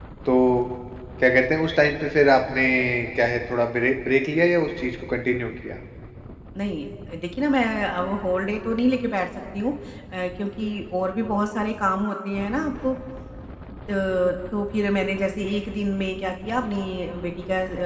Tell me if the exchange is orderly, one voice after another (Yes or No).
Yes